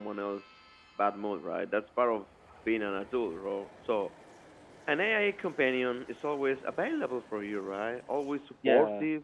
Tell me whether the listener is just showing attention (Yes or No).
Yes